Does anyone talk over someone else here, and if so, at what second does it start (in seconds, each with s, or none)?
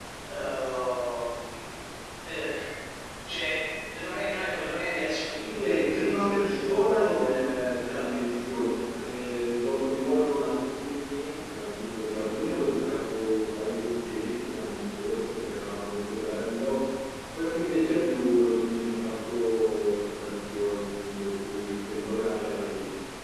5.4 s